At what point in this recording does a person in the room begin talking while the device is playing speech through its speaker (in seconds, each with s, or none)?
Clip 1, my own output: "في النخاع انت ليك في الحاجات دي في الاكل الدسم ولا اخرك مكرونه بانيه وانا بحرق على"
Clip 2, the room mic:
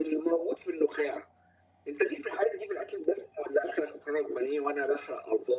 none